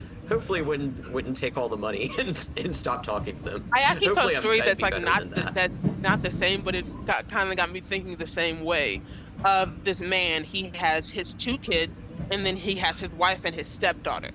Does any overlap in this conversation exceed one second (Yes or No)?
Yes